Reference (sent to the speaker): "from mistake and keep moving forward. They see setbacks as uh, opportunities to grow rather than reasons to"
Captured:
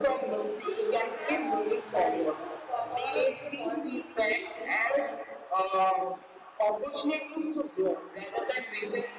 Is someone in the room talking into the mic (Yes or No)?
Yes